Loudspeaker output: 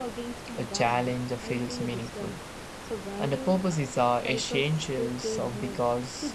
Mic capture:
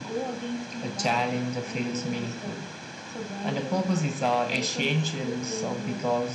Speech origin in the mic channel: echo only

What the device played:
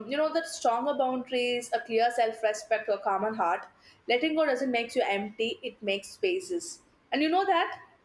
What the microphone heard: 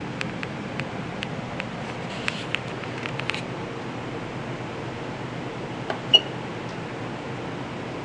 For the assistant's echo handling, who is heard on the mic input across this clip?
neither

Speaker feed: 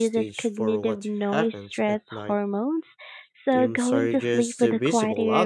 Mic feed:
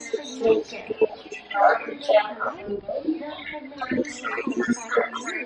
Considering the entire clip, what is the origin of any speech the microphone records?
both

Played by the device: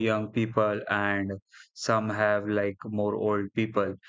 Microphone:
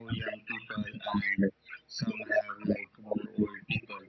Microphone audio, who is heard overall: echo only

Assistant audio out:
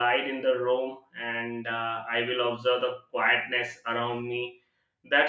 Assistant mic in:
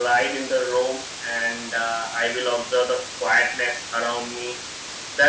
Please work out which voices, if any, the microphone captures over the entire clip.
echo only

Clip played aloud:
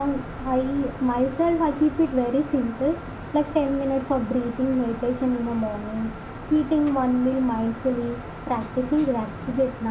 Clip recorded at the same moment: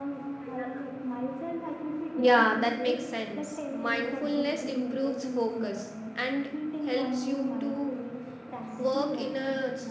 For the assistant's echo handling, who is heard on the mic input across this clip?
both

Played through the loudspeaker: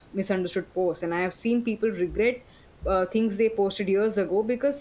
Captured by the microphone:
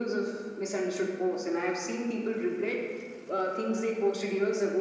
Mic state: echo only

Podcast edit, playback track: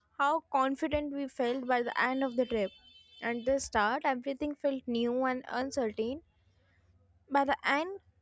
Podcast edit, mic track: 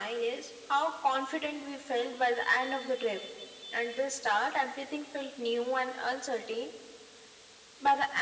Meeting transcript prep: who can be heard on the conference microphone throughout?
echo only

